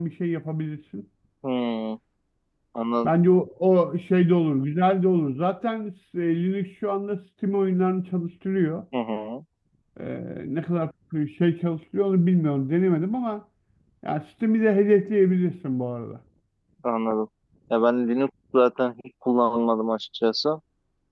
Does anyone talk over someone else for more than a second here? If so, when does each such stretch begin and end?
none

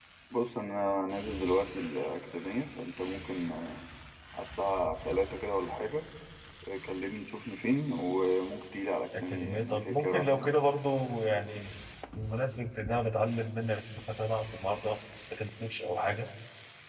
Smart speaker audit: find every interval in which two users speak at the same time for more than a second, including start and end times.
9.1-10.5

